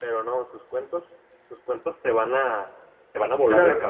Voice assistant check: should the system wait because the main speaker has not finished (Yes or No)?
No